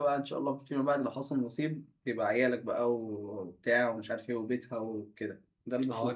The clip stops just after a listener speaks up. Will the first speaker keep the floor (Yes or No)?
No